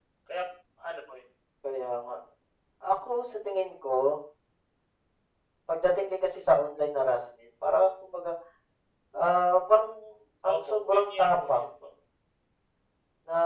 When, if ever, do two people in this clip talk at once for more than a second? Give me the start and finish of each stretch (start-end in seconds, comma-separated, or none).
10.4-11.7